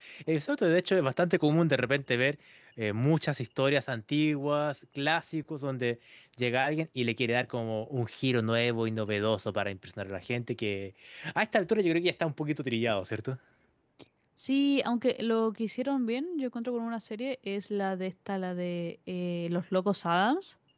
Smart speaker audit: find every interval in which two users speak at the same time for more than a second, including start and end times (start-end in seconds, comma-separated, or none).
none